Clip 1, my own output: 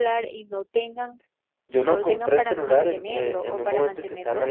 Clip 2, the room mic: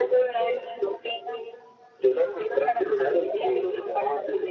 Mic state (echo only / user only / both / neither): echo only